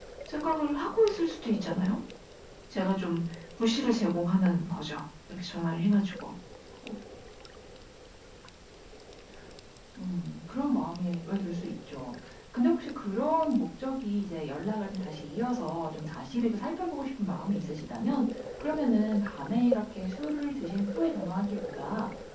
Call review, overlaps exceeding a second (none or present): none